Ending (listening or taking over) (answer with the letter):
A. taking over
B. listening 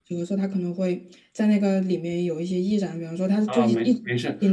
A